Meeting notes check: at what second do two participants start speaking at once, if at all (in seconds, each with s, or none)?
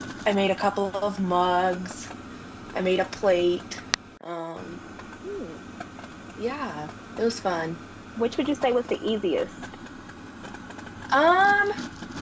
none